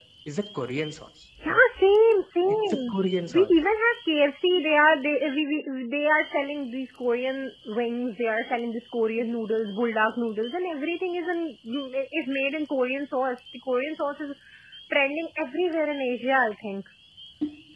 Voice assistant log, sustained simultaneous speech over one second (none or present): none